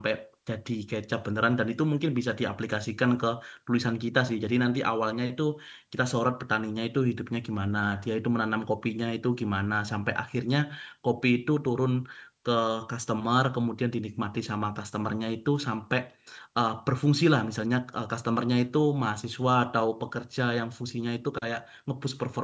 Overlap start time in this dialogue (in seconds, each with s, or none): none